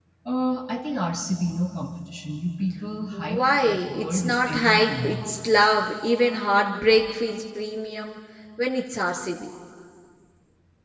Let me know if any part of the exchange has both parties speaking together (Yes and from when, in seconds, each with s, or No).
Yes, from 3.1 s